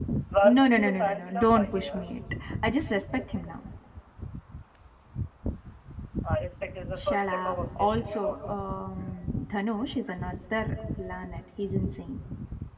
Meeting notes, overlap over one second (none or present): present